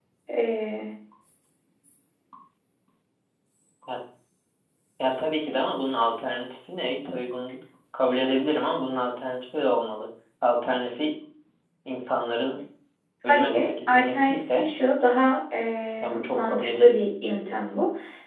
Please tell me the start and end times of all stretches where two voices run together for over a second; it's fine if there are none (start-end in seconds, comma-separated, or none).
13.3-14.7, 16.0-17.6